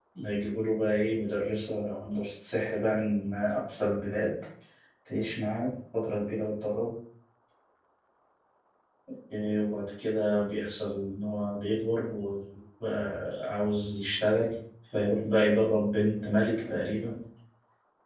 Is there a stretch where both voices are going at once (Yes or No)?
No